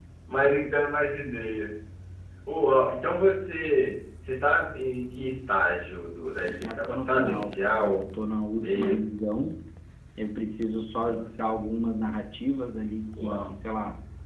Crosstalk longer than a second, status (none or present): present